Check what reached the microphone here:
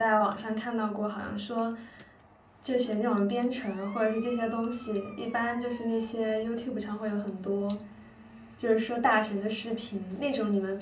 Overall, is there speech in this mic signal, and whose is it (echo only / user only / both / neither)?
user only